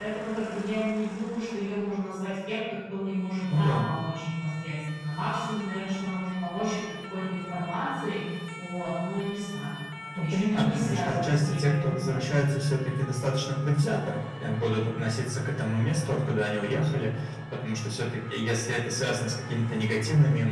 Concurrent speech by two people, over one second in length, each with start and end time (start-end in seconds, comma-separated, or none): 10.2-12.3